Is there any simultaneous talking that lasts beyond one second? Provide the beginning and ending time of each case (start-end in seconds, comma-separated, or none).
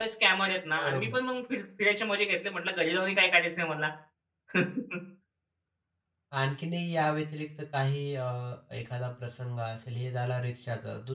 none